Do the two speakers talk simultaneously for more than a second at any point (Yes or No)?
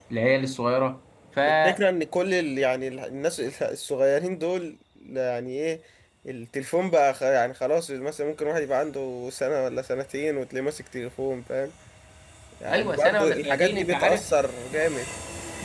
Yes